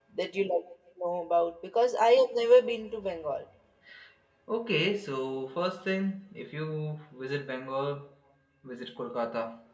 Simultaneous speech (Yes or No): No